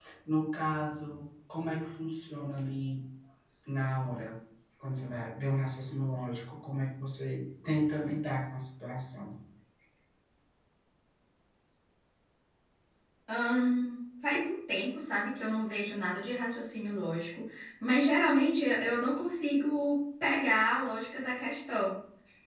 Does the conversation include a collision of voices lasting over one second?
No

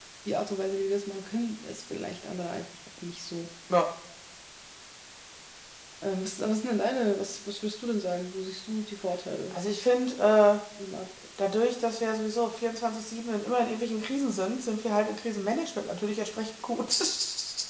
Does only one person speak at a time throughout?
Yes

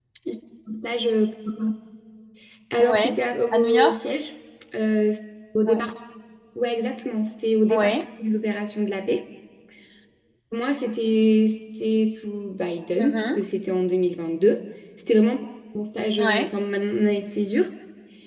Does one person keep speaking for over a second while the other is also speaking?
No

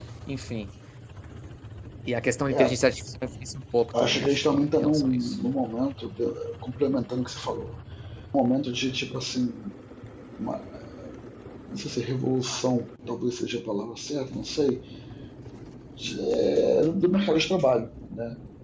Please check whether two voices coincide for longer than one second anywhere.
Yes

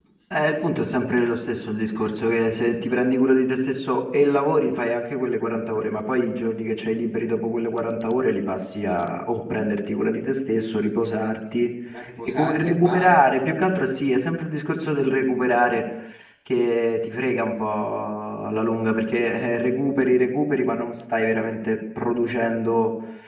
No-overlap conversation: No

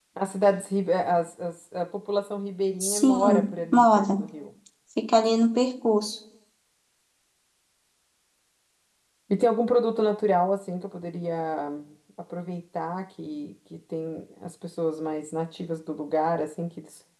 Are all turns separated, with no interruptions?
No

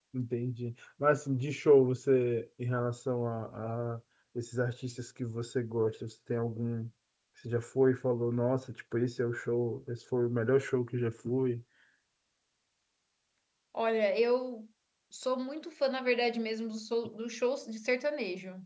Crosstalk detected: No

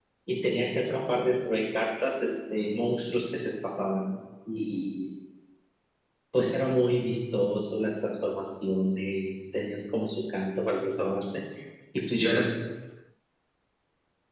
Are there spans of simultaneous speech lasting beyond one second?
No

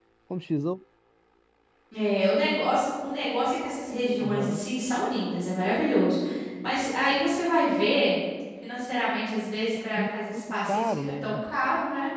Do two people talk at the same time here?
Yes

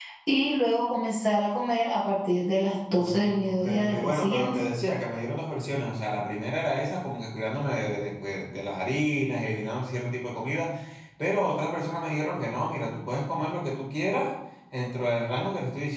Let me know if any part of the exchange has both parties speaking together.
Yes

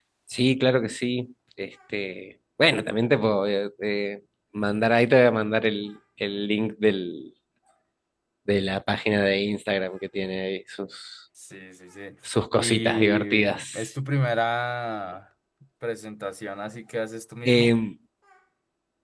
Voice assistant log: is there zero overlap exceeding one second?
No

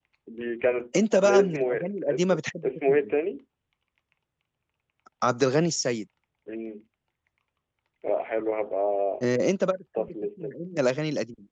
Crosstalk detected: Yes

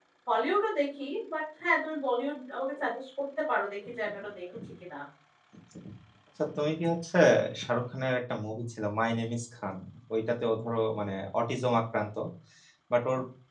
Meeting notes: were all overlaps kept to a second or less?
Yes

